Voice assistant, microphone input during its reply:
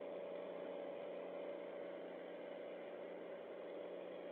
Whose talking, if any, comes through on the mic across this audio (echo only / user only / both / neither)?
neither